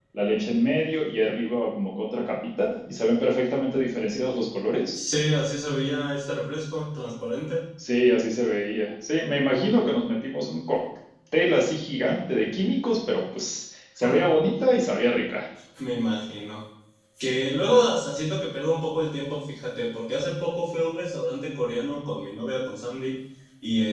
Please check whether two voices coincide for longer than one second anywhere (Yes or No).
No